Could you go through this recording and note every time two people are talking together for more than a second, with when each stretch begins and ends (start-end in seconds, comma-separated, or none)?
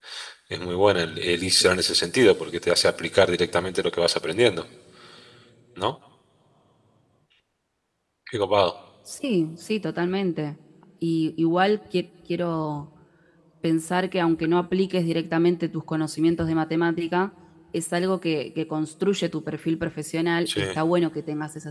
none